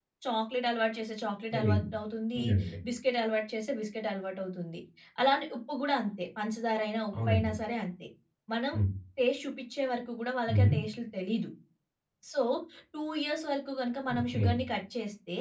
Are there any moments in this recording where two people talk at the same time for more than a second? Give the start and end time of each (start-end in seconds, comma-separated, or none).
none